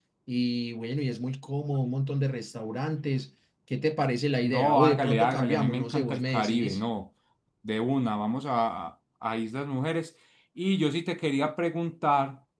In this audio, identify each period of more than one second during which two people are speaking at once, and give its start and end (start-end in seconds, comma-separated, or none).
4.4-6.8